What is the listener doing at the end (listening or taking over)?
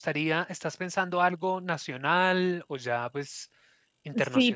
taking over